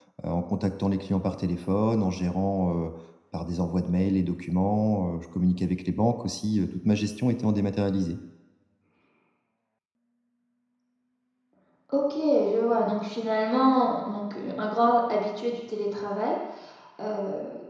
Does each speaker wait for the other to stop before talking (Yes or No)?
Yes